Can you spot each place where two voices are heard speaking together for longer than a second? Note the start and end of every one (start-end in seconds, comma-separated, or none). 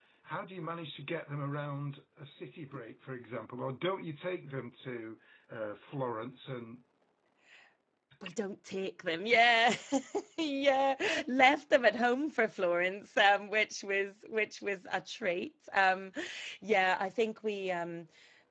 none